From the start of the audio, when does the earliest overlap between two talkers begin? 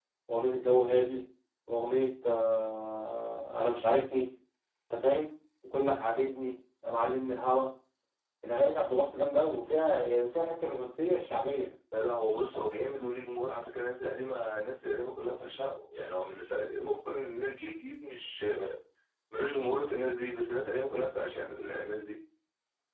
none

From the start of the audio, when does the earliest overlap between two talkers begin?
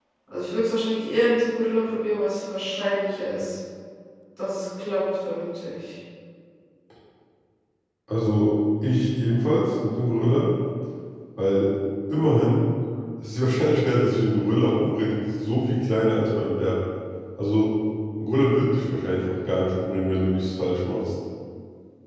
none

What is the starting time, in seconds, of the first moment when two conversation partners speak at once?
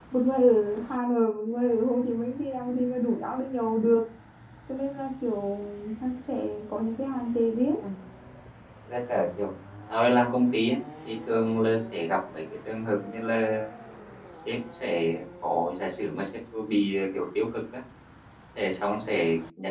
none

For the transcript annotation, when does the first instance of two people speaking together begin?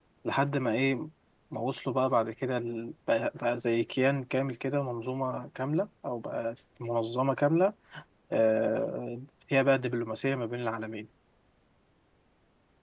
none

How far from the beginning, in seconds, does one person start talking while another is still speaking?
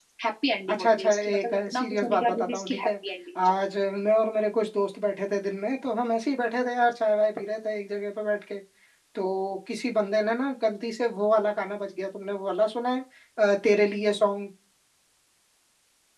0.7 s

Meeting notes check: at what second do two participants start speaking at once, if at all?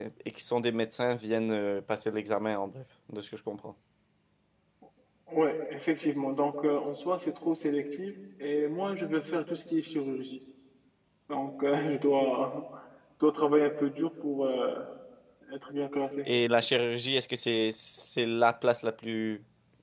none

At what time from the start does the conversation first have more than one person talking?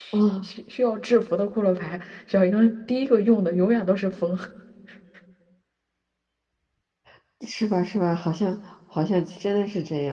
none

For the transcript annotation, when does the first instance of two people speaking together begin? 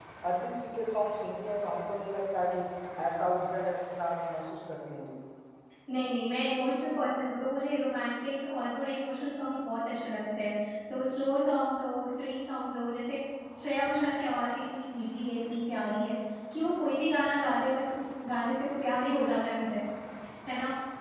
none

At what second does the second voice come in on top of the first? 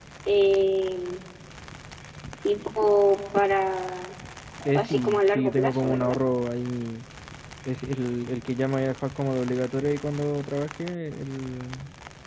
4.7 s

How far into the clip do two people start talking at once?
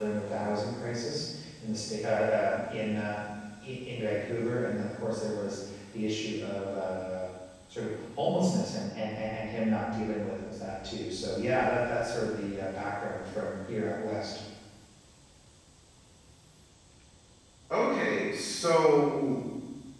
none

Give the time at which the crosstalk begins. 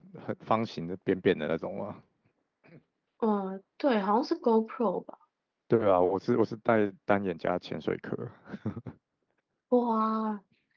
none

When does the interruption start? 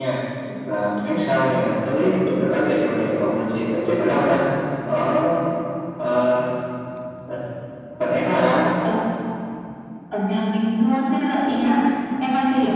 none

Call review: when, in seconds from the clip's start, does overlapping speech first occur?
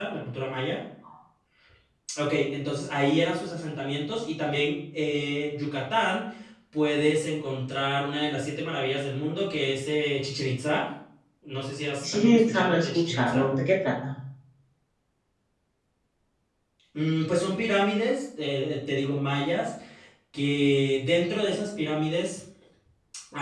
12.1 s

